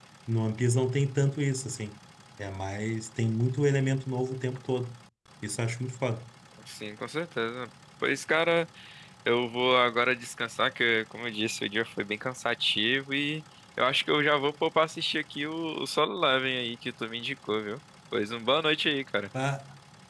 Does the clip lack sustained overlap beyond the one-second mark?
Yes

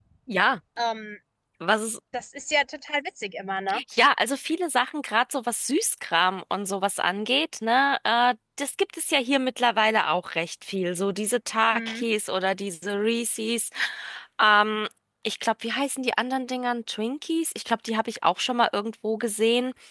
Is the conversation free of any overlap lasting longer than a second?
Yes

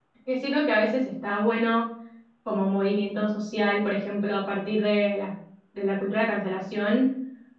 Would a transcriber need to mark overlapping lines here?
No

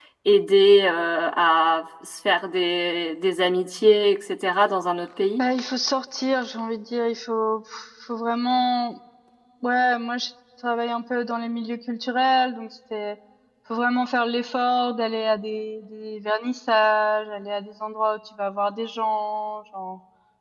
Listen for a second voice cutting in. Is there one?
No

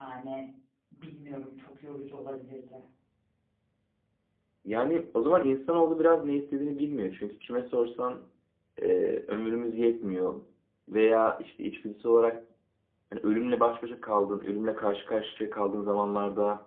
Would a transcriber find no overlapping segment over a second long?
Yes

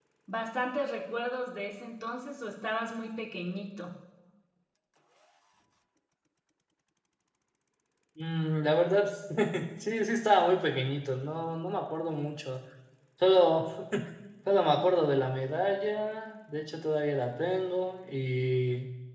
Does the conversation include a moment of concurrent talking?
No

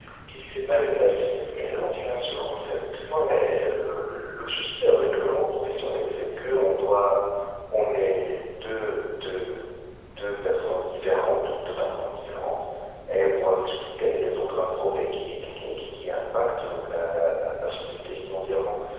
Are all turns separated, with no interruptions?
No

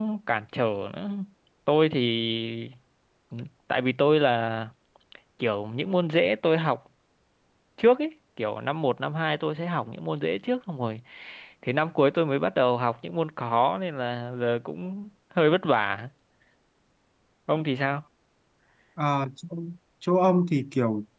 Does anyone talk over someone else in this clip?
No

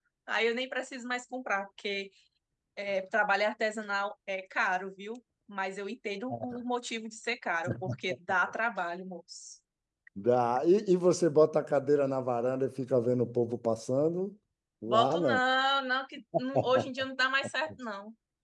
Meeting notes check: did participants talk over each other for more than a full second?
No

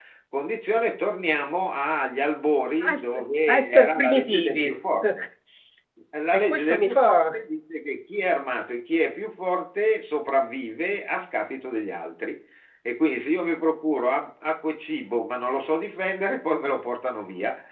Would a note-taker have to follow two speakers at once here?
Yes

